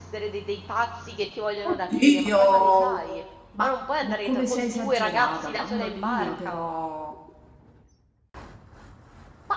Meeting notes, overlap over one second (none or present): present